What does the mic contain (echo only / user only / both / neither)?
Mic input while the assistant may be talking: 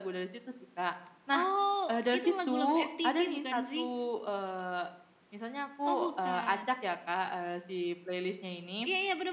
echo only